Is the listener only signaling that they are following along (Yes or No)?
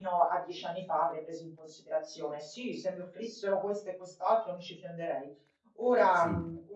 Yes